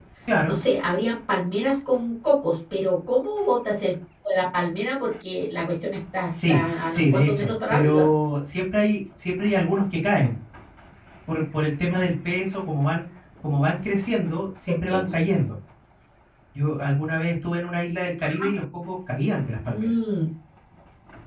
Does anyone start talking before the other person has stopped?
Yes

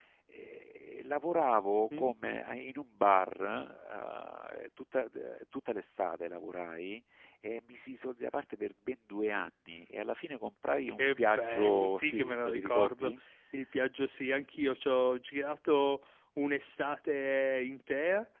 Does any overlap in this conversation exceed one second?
Yes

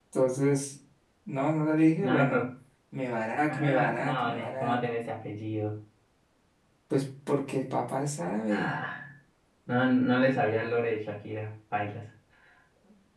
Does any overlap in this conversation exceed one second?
Yes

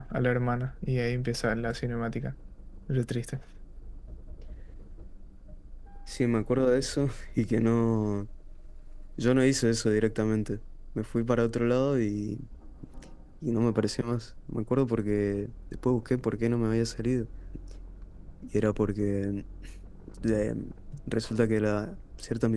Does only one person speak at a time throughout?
Yes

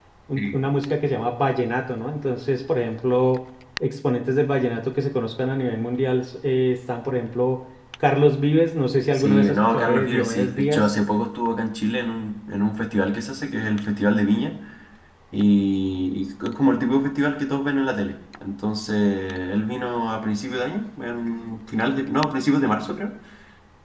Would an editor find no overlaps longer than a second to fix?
No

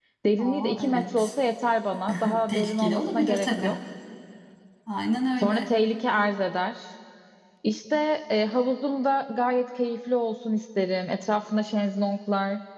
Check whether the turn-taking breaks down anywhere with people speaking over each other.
Yes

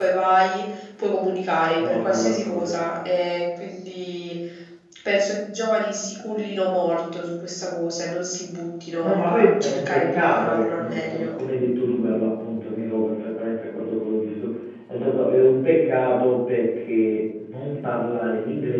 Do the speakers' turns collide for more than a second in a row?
Yes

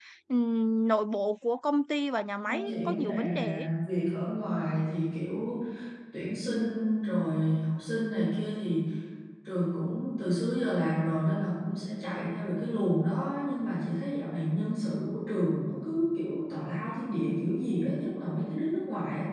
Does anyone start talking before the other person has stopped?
Yes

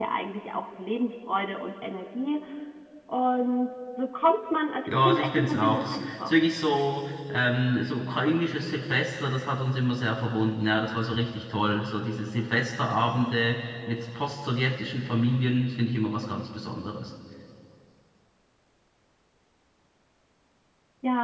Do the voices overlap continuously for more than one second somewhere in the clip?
Yes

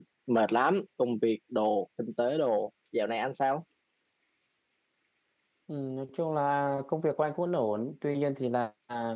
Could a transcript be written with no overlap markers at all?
Yes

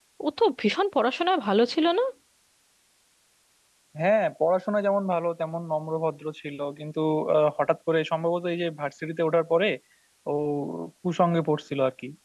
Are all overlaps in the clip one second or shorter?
Yes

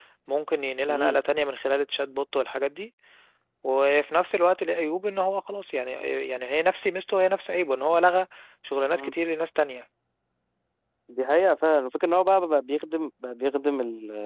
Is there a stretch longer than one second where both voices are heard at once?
No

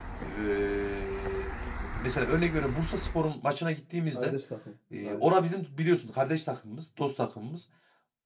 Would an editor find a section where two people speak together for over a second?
No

